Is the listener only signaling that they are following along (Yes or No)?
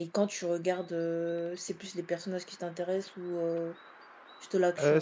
No